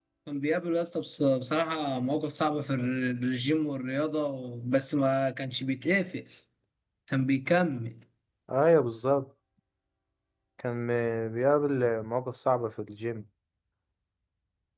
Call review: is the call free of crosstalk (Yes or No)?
Yes